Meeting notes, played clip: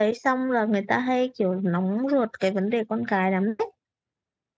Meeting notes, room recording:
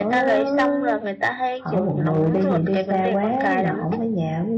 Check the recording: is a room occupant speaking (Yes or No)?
Yes